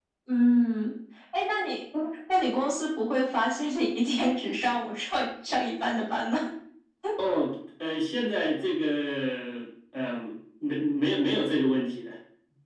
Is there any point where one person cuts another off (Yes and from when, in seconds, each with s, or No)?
No